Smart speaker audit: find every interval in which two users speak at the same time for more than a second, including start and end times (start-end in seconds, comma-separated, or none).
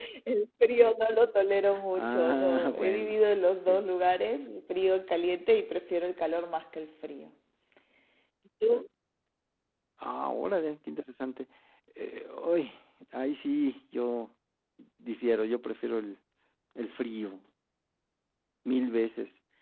1.9-3.2